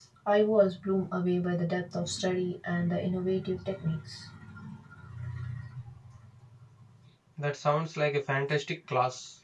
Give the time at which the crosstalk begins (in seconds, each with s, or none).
none